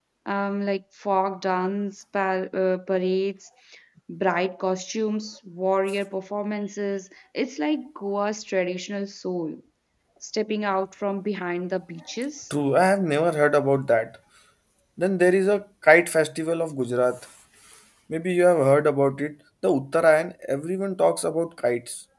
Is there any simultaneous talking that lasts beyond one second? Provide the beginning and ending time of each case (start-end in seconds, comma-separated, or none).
none